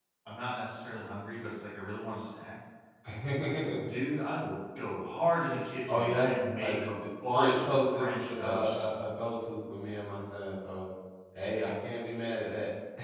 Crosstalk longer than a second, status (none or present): present